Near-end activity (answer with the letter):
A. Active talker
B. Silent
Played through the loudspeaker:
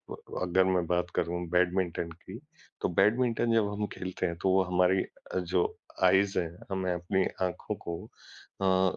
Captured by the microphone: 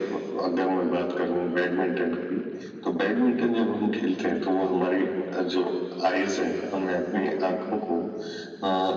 B